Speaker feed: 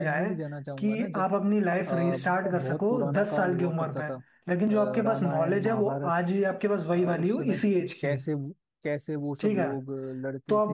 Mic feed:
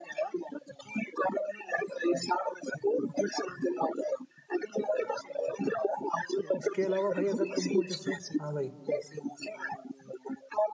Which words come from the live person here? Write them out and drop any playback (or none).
अब इसके अलावा भाई अगर तुमको जैसे हाँ भाई